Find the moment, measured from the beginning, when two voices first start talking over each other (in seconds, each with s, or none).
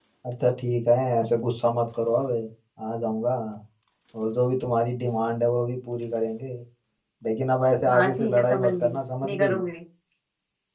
7.9 s